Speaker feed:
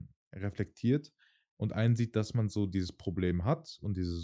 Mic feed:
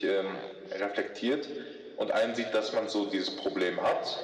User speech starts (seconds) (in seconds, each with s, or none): none